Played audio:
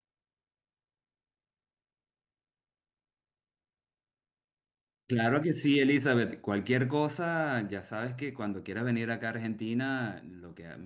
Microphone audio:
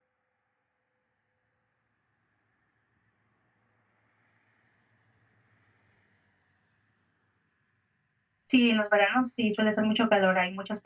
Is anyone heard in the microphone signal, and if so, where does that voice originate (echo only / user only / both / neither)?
user only